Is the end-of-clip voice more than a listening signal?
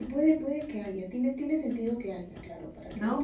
Yes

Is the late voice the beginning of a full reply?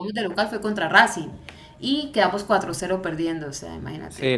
Yes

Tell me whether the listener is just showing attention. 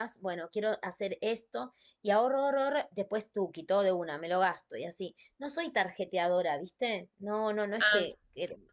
Yes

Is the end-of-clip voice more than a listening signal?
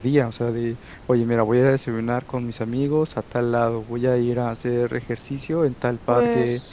No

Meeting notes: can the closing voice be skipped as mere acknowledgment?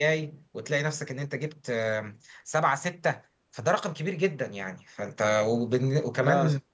Yes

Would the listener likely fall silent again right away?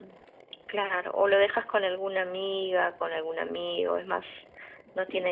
Yes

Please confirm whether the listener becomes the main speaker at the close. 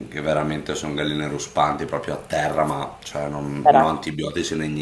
No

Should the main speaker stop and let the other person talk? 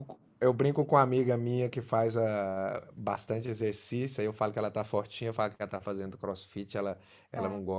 No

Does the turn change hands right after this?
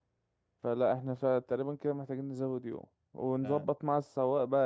No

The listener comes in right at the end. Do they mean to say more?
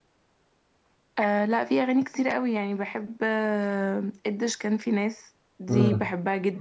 No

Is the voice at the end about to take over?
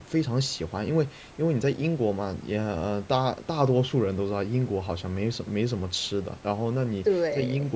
No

